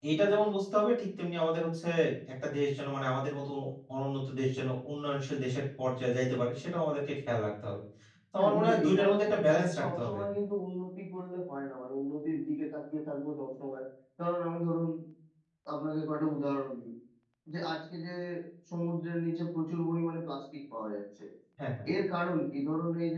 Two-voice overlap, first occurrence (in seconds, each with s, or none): 8.3 s